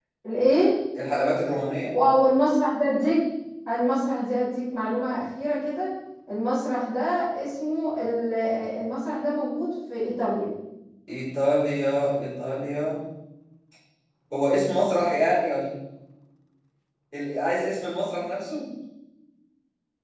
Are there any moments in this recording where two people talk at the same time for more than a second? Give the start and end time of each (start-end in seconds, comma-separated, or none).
none